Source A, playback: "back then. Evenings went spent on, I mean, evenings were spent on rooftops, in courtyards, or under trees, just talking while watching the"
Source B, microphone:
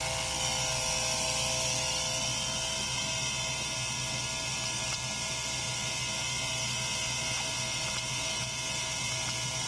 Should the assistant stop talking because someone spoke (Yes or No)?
No